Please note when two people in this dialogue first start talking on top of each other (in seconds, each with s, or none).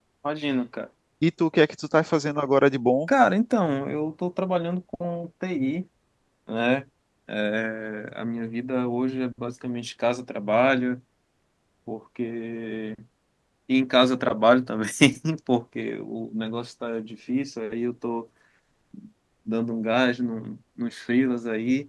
none